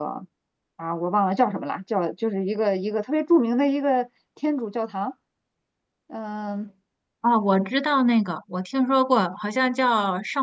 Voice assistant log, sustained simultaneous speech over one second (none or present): none